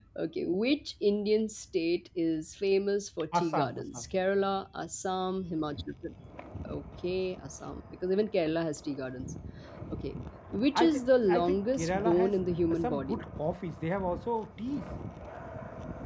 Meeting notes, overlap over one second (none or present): present